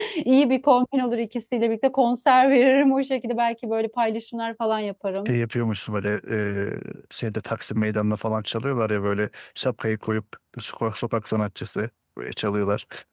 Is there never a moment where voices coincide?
Yes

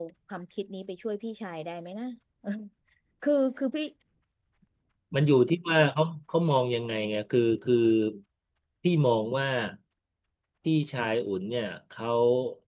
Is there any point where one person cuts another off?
No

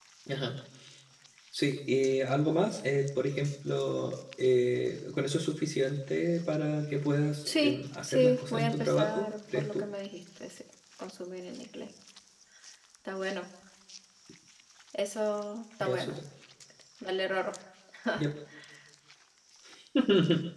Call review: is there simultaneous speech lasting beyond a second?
Yes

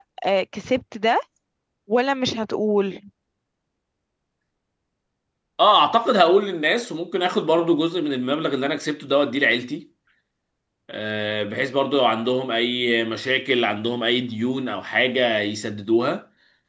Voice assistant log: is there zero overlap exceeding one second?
Yes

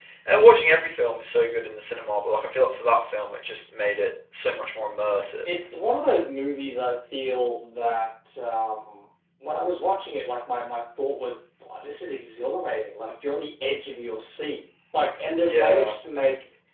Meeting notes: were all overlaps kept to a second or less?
Yes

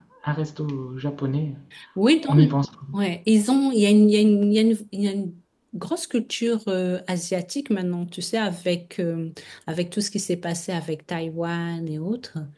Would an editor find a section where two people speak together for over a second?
No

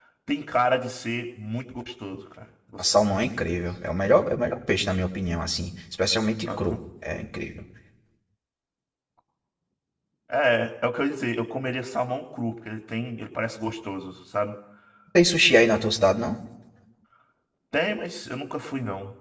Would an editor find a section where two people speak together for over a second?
No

